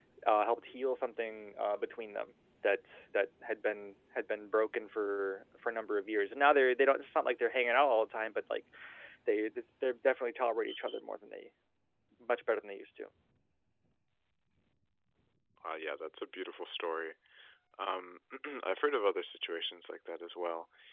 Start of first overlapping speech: none

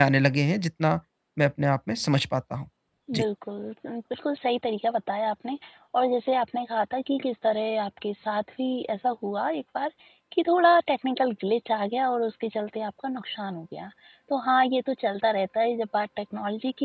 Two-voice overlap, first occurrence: none

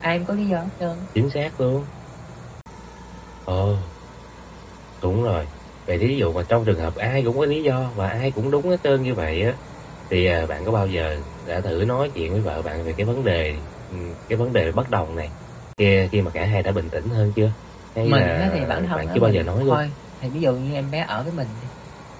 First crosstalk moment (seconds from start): 18.0 s

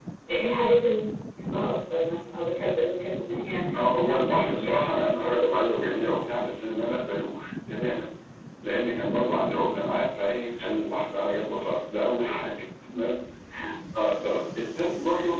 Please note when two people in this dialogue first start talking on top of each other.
4.0 s

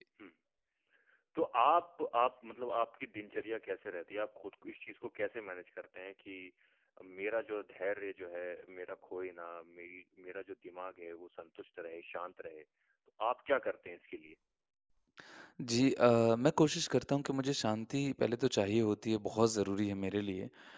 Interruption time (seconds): none

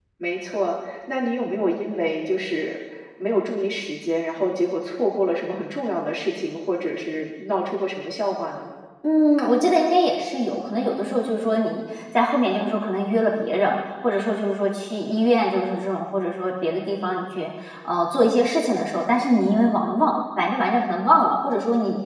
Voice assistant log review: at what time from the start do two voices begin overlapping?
none

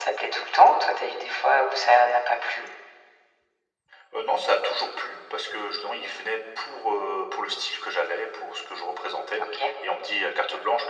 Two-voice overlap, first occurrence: none

